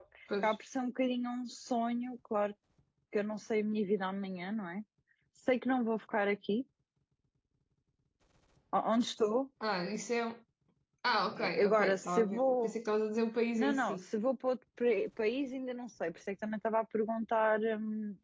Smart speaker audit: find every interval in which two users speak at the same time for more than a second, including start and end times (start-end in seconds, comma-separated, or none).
11.4-12.7